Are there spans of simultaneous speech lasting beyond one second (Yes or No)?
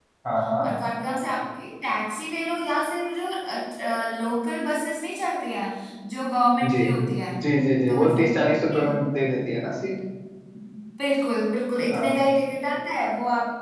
No